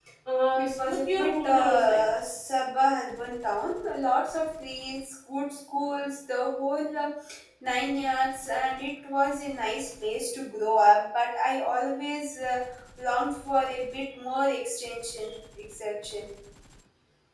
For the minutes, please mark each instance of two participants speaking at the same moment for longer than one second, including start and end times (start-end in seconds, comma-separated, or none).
0.6-2.0